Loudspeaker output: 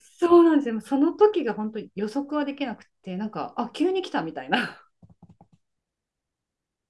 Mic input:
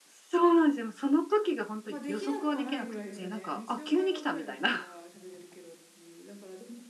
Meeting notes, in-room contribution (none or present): present